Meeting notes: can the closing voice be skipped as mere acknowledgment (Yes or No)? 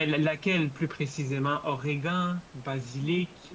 No